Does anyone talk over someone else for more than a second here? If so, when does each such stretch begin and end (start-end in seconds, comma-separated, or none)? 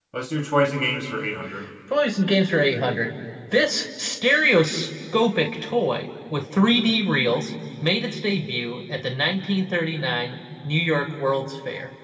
none